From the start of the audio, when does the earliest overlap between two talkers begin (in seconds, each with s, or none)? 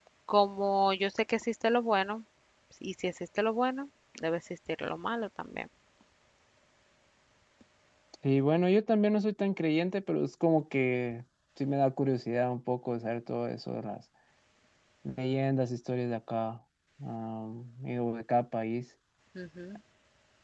none